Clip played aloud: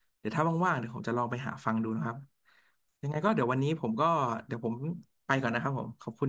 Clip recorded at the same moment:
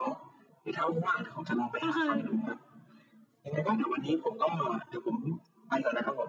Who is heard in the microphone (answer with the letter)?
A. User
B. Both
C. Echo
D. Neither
B